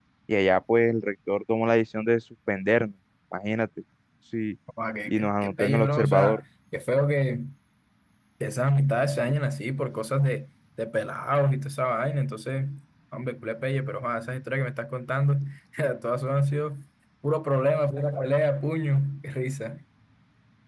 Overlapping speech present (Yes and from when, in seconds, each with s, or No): Yes, from 5.1 s